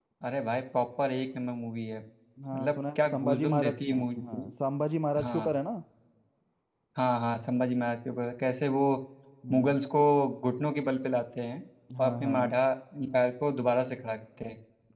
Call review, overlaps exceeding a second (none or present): present